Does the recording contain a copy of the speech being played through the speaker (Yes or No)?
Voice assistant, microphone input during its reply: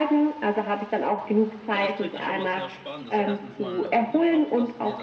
Yes